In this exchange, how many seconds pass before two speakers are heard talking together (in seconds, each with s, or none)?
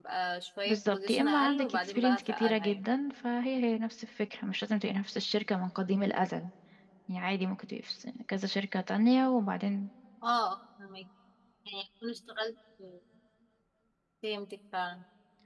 0.7 s